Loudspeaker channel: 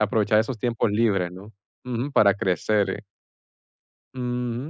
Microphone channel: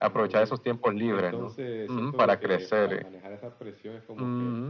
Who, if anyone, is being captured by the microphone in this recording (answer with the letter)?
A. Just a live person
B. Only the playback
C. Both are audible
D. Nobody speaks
C